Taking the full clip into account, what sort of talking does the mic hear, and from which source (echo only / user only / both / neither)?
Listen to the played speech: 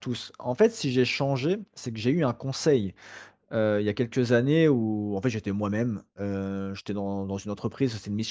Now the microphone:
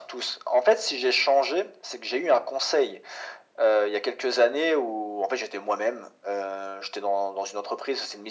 echo only